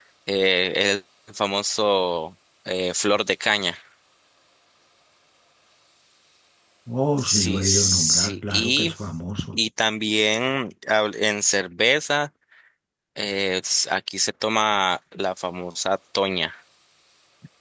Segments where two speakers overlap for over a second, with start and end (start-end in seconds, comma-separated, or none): 7.2-8.9